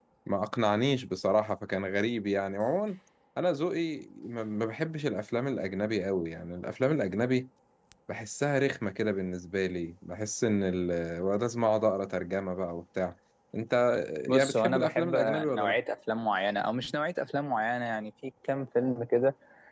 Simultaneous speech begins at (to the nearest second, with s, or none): 14 s